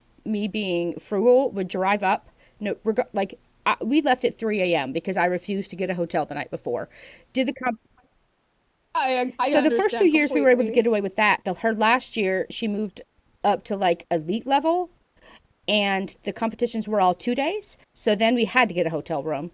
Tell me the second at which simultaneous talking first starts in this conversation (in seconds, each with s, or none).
9.5 s